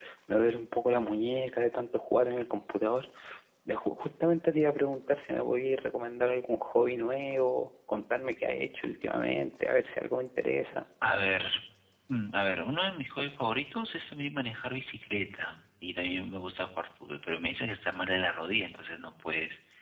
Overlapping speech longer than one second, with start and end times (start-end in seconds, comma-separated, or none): none